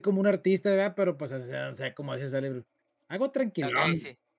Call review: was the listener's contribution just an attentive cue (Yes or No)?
No